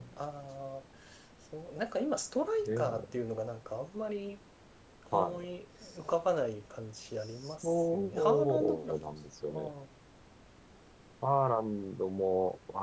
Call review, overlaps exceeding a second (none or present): present